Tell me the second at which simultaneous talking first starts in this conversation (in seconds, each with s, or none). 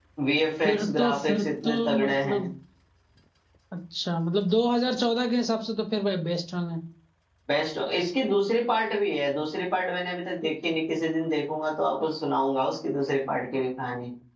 0.6 s